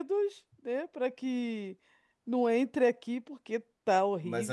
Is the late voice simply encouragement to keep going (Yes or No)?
No